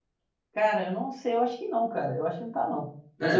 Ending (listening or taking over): taking over